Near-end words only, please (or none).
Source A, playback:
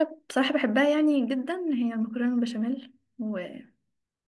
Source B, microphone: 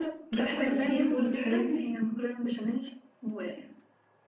بتحب السي فود والحاجات دي؟